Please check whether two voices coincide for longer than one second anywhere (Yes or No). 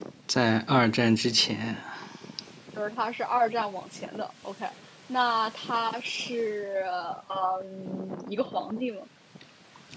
No